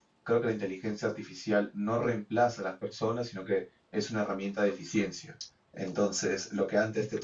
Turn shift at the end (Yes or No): No